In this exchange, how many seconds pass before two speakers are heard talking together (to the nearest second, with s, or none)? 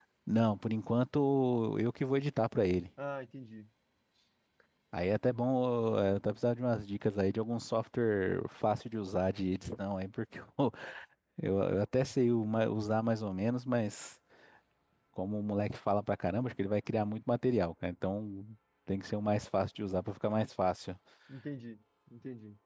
none